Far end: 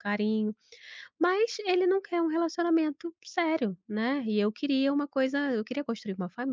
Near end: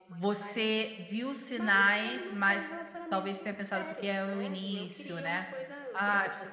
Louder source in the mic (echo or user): user